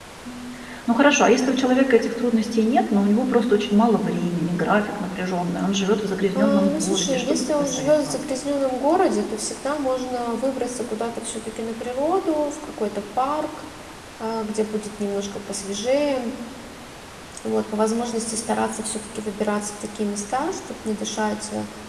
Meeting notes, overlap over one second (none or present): present